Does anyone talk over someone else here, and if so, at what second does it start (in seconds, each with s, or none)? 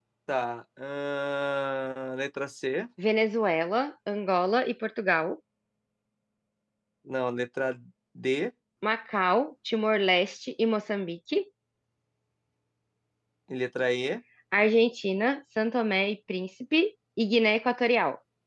none